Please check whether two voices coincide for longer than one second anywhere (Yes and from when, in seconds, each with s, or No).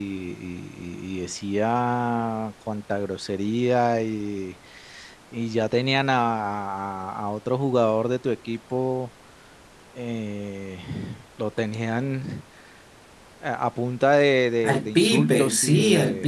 Yes, from 14.6 s